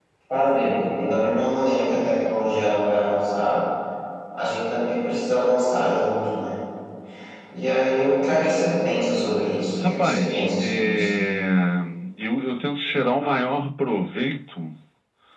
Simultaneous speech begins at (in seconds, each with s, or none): 9.8 s